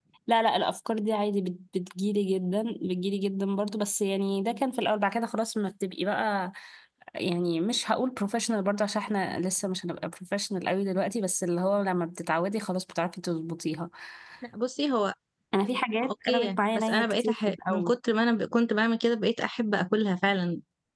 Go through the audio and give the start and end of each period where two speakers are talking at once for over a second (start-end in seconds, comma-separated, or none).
16.0-18.0